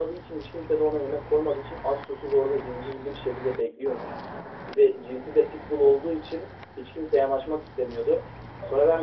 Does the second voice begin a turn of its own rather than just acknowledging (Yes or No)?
No